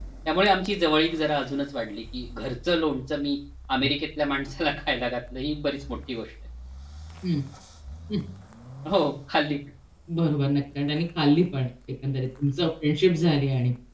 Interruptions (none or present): none